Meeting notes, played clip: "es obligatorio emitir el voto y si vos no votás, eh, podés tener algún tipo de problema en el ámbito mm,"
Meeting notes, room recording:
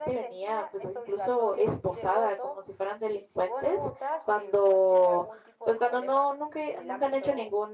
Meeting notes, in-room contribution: present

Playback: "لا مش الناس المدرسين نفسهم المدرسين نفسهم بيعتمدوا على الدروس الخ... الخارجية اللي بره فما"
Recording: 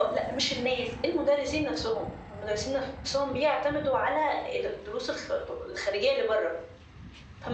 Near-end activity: none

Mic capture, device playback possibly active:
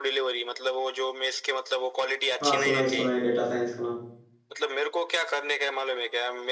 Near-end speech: present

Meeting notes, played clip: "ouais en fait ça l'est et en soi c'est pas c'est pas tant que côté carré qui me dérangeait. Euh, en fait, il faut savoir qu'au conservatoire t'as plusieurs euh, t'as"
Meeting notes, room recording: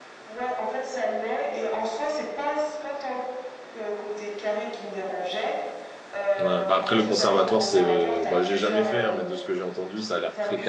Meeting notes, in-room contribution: present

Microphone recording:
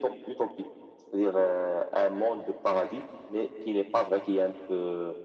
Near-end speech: none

